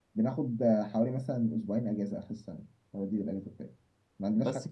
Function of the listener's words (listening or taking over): listening